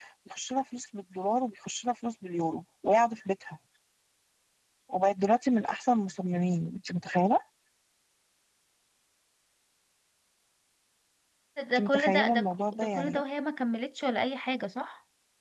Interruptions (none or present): present